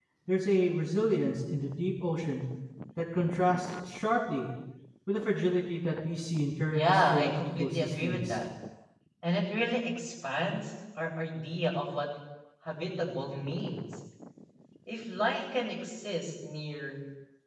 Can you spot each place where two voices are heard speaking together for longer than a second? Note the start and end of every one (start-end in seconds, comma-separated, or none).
6.7-8.4